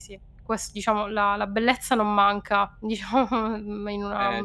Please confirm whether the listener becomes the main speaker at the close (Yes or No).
Yes